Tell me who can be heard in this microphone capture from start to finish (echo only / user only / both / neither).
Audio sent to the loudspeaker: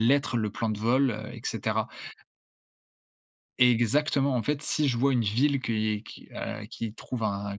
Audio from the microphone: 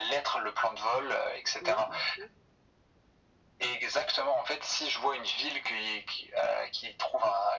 both